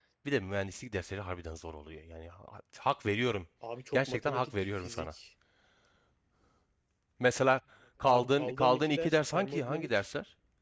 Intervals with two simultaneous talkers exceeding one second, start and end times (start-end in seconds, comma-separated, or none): 3.9-5.1, 8.1-9.9